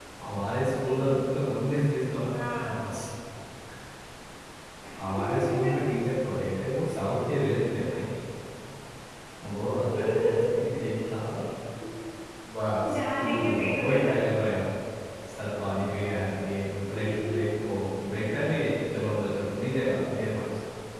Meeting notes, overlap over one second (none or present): present